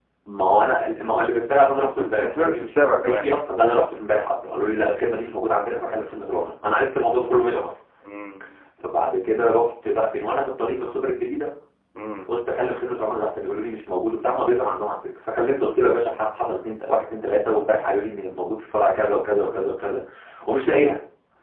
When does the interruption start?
1.8 s

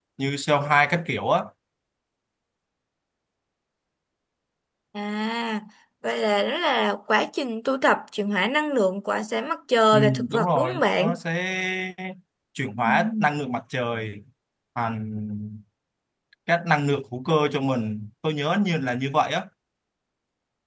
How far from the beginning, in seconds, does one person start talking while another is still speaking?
9.9 s

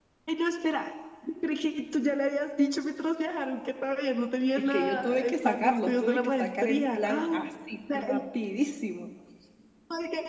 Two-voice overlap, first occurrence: 4.6 s

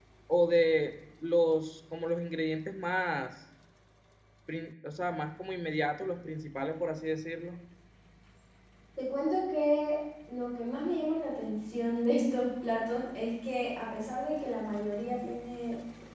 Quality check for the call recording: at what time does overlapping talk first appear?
none

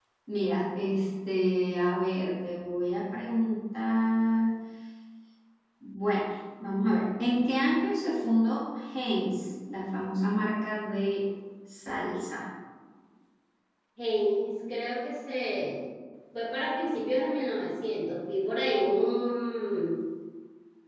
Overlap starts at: none

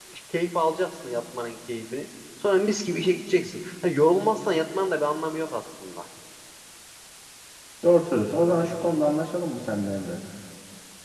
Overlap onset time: none

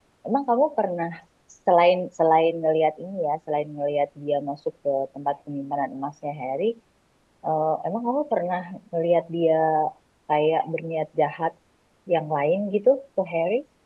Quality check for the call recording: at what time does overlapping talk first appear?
none

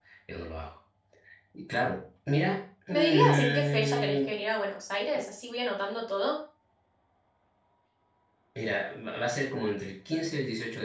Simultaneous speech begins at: 2.9 s

